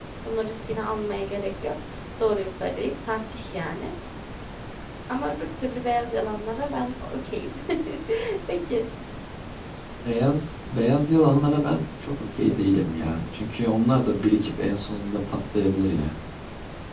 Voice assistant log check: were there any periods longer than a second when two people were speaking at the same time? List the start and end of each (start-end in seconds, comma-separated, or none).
none